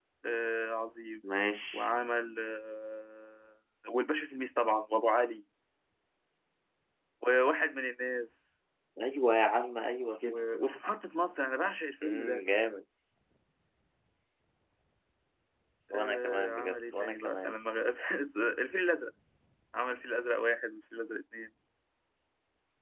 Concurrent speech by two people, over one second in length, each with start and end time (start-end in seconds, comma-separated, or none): 15.9-17.6